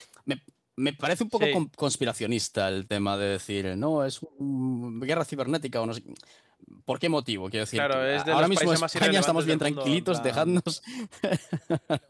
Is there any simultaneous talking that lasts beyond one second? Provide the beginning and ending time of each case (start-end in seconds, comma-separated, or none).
7.7-10.6